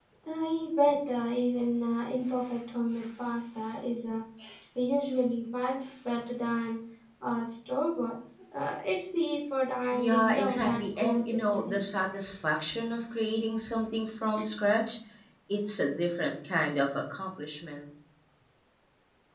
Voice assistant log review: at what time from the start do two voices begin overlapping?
9.9 s

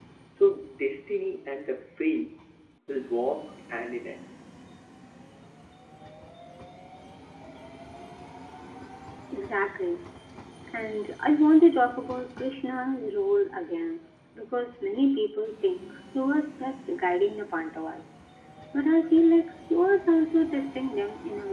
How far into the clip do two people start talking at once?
none

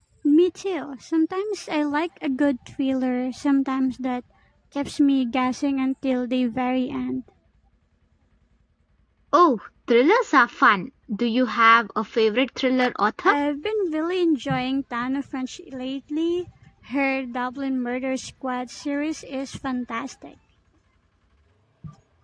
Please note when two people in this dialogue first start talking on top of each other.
none

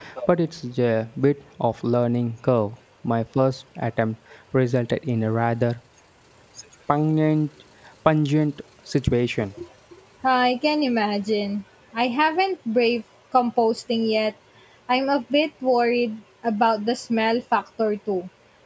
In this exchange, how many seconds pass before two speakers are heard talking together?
none

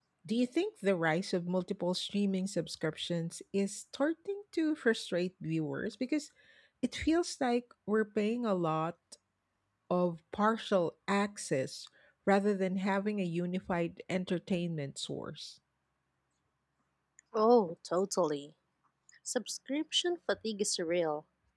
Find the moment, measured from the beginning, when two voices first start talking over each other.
none

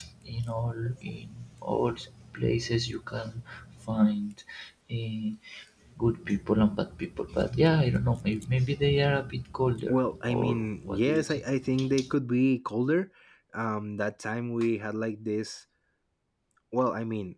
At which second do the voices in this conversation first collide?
9.9 s

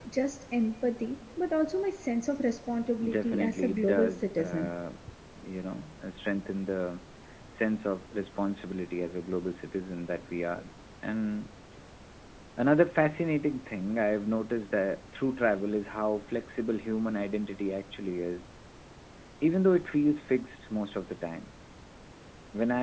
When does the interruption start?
3.0 s

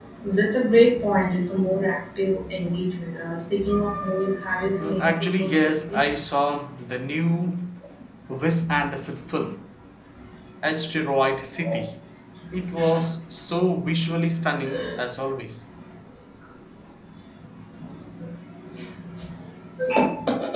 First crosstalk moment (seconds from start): 4.8 s

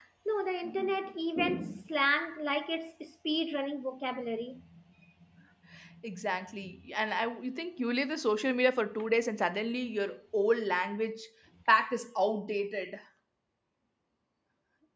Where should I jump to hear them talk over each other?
none

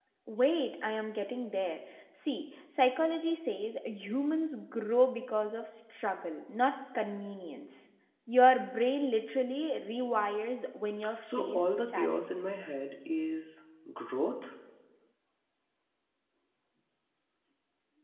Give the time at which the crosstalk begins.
11.2 s

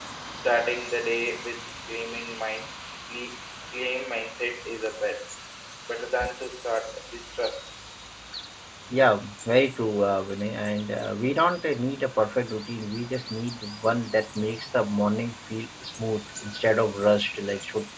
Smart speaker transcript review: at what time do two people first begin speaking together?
none

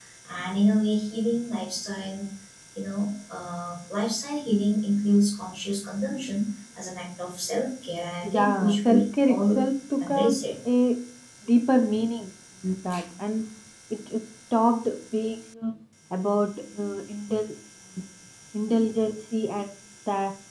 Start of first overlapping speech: 8.2 s

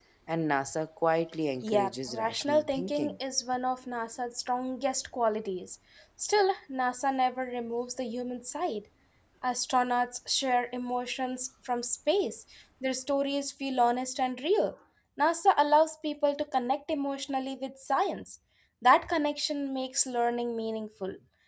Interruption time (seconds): 1.6 s

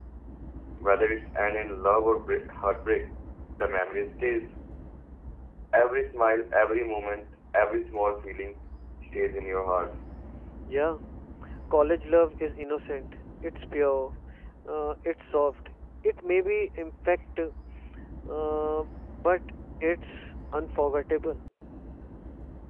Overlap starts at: none

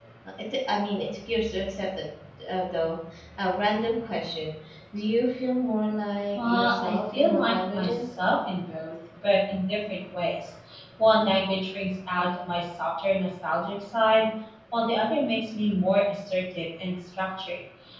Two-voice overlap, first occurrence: 6.3 s

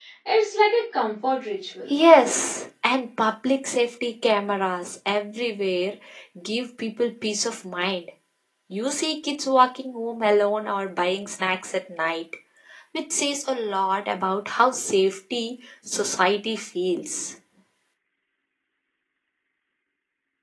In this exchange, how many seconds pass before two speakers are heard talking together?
none

